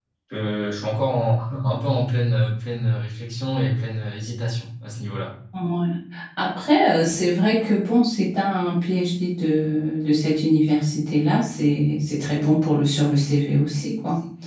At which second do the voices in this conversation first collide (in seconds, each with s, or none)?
none